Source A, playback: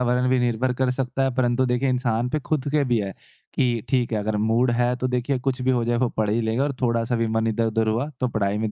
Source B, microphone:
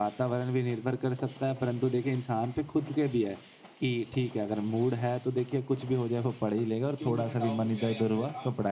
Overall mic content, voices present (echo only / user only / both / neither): both